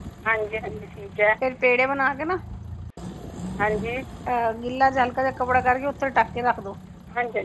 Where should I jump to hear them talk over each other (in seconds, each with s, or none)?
none